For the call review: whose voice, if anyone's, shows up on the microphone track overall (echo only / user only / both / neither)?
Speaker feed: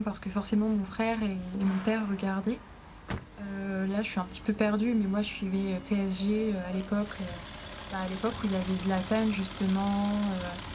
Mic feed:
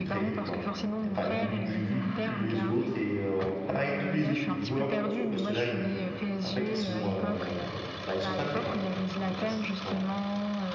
both